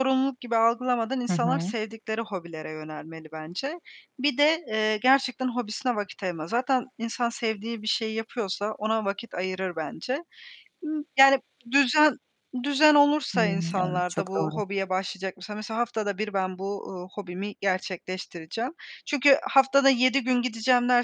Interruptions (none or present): present